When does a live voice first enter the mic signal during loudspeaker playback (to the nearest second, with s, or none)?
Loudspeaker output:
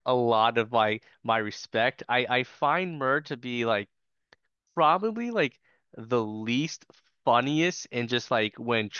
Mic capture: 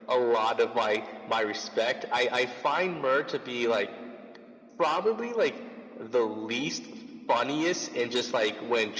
none